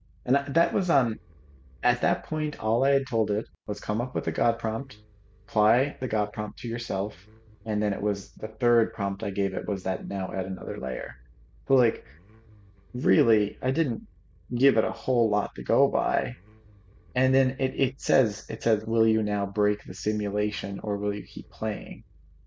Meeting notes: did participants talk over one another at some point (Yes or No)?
No